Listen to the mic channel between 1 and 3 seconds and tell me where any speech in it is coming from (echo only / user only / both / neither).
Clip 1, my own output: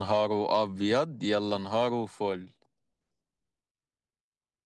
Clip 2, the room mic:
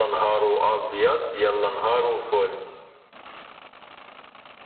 echo only